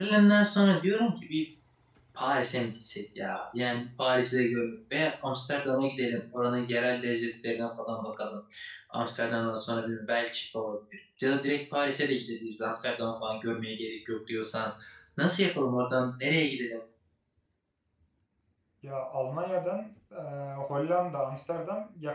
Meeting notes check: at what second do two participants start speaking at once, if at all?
none

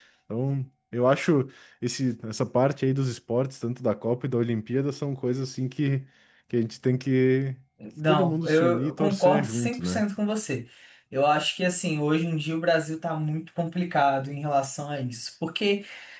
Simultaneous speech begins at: 8.1 s

